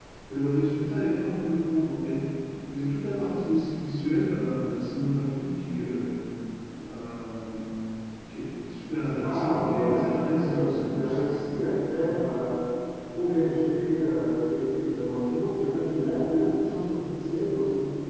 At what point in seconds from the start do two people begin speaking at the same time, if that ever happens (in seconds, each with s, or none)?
9.0 s